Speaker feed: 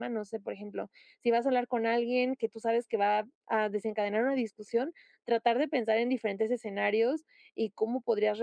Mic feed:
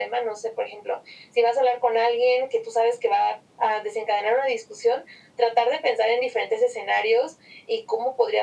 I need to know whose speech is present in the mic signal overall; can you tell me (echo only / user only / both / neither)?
echo only